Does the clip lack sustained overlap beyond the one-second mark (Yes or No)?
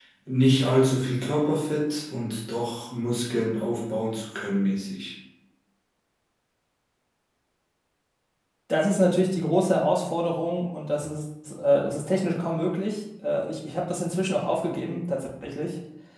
Yes